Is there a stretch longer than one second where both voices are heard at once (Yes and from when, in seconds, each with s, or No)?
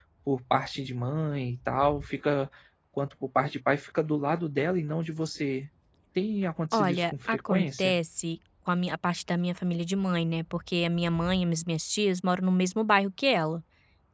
Yes, from 6.7 s